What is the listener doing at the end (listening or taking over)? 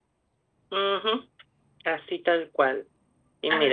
listening